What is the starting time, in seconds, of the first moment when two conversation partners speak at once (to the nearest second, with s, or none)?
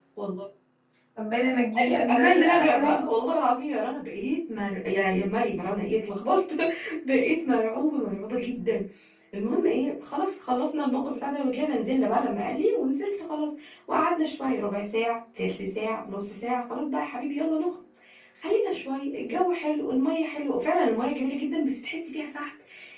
2 s